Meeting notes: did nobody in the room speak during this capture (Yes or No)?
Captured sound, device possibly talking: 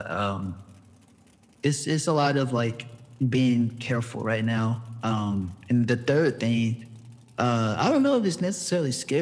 Yes